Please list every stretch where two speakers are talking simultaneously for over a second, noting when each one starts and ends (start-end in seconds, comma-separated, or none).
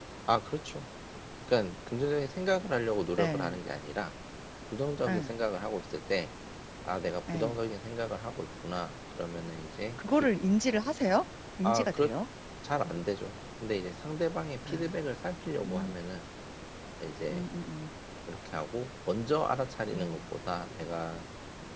none